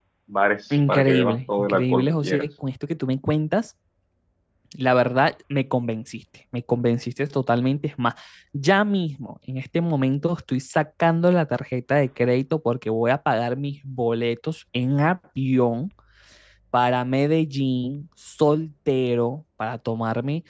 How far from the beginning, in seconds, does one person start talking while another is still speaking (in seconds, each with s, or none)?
0.9 s